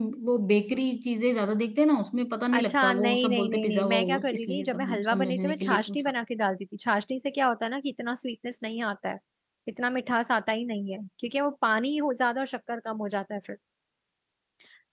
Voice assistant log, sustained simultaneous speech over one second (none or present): present